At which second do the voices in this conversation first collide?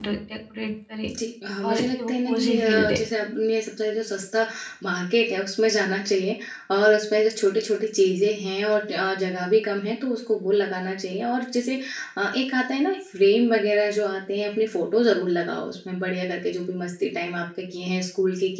1.6 s

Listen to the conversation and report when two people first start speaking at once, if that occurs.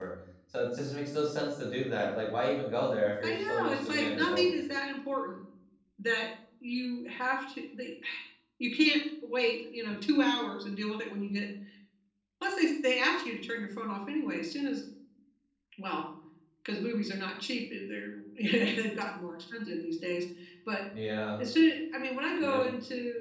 3.2 s

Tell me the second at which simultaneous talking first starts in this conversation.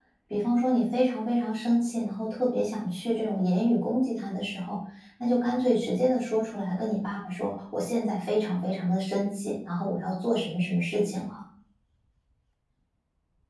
none

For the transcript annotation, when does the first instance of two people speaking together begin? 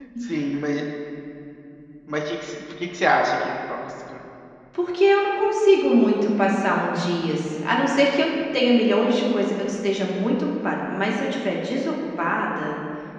none

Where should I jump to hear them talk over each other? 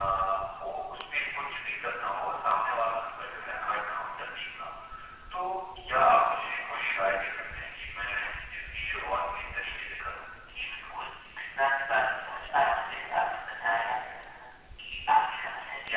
none

